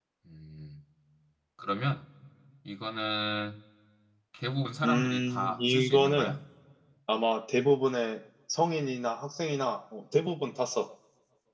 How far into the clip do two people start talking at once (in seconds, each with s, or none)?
4.8 s